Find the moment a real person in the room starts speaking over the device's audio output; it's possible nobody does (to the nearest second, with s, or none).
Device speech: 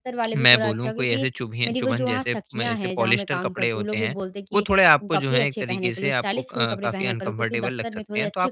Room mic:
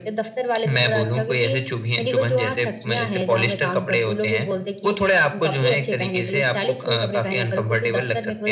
none